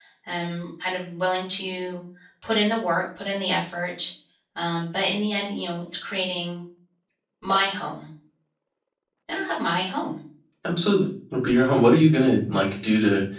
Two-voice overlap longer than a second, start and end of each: none

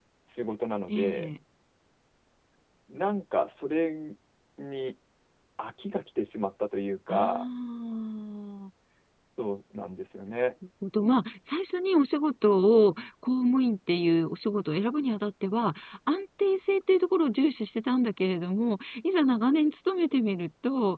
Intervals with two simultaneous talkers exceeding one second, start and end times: none

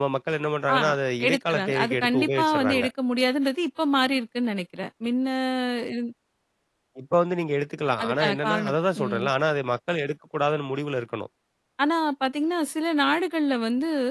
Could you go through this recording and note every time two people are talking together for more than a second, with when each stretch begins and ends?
1.2-2.9, 8.0-9.2

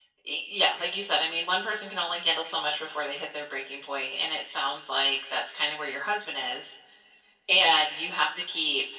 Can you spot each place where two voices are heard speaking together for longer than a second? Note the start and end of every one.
none

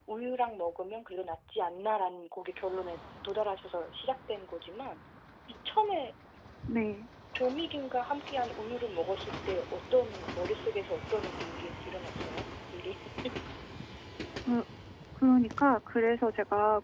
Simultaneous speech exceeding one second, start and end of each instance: none

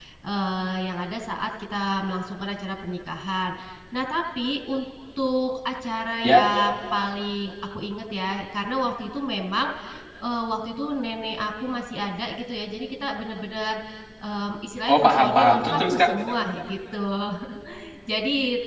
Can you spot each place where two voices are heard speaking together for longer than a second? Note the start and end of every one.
14.9-16.1

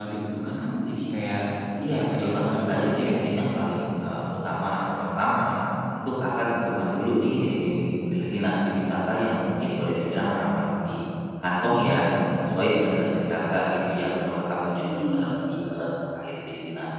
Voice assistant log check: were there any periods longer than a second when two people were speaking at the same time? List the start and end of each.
1.8-3.1

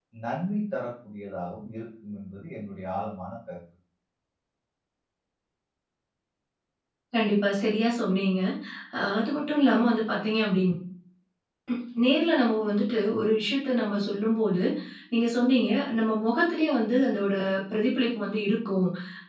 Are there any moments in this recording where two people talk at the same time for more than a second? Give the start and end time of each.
none

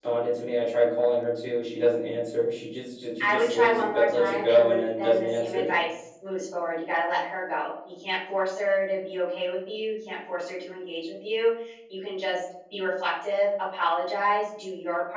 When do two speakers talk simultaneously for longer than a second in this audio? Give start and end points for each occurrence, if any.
3.2-5.8

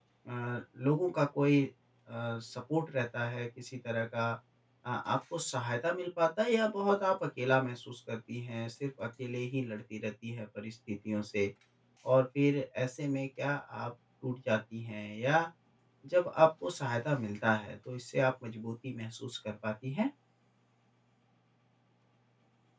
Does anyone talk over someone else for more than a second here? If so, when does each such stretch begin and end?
none

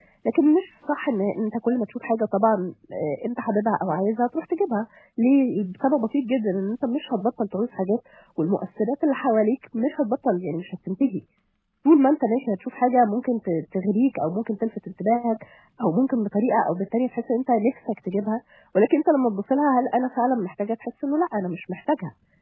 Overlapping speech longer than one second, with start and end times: none

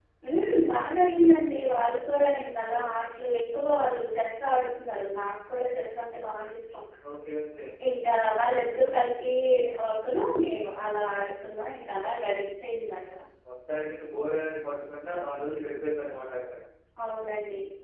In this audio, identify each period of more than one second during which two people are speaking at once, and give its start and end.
none

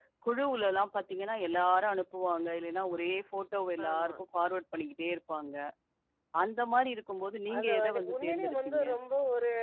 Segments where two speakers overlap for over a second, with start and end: 7.6-8.8

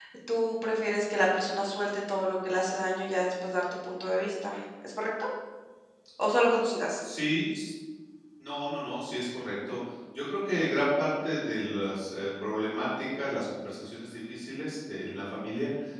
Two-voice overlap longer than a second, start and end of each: none

